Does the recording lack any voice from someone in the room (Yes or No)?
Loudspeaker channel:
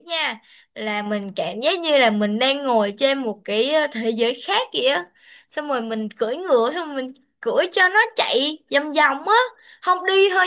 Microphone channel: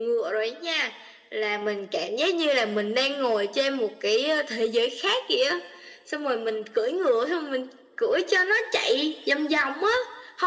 Yes